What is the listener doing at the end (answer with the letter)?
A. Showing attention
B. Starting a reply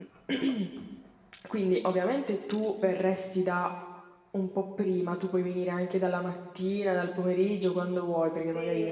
B